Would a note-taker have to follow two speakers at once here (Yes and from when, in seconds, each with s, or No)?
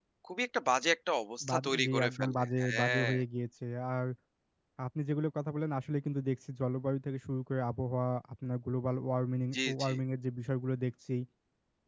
Yes, from 1.5 s